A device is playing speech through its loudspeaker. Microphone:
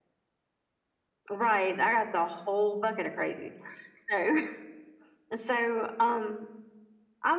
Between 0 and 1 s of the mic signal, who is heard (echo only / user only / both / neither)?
neither